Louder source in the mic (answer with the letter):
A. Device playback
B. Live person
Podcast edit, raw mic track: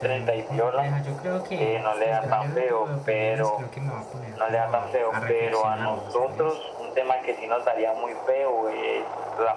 A